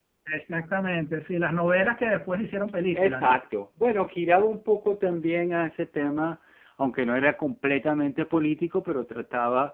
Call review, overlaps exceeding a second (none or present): none